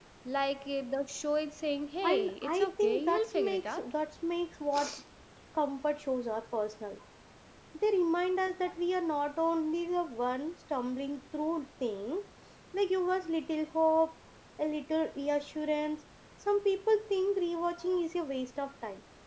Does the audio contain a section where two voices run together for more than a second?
Yes, from 2.0 s

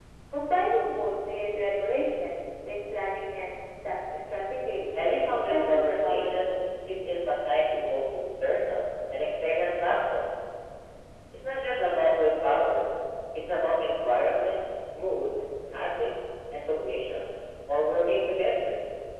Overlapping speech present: Yes, from 4.9 s

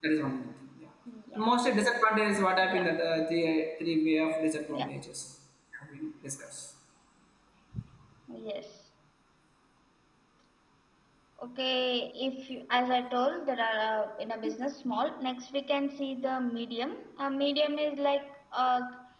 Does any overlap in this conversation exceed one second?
No

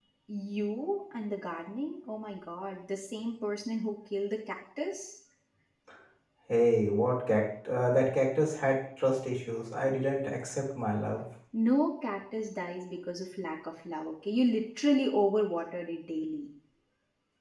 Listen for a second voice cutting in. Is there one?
No

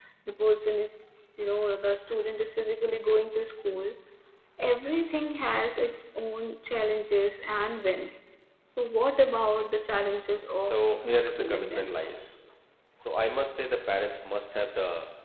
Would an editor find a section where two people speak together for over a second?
Yes, from 10.6 s

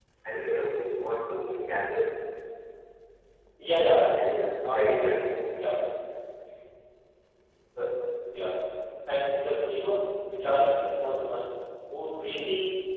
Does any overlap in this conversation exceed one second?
Yes, from 4.1 s

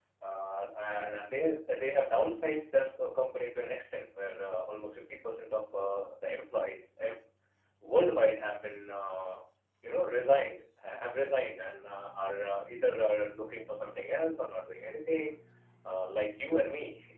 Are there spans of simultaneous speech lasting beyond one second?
No

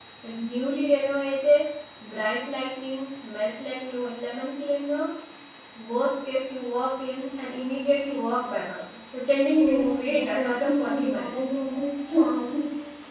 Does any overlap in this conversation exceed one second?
Yes, from 9.6 s

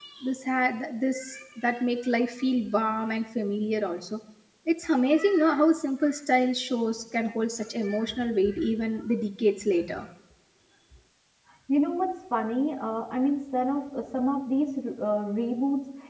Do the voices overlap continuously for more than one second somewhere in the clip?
No

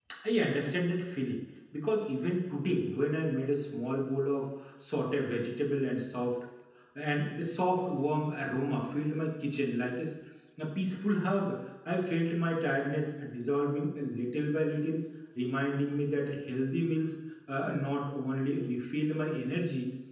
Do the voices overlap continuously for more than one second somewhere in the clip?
No

